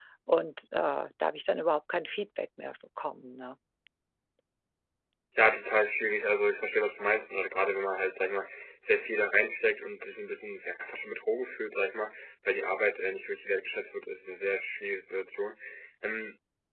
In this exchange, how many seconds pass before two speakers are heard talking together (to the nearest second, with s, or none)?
none